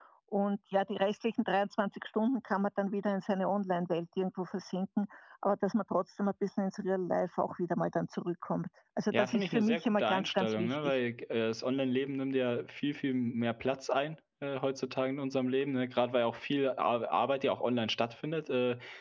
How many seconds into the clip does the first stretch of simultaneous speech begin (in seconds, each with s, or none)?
9.1 s